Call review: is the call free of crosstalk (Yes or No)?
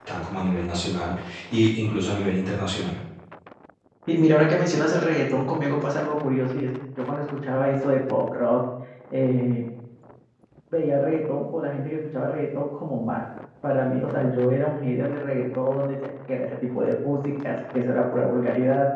Yes